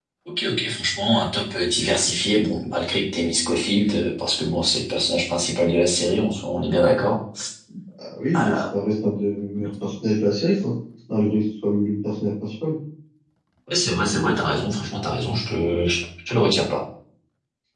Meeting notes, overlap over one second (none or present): none